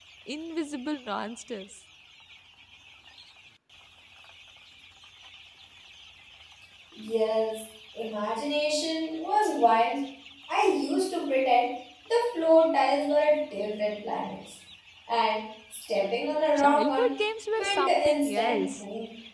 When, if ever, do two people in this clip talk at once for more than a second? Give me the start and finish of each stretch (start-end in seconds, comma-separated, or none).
17.6-18.8